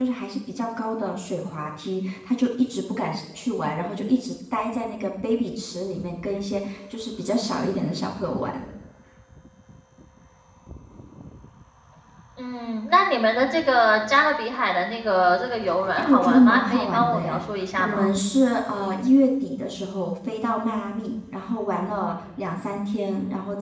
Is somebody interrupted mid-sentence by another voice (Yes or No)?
Yes